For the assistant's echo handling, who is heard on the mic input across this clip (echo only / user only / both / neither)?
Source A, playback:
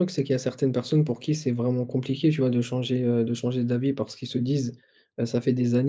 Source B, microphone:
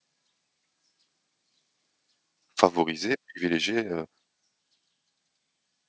user only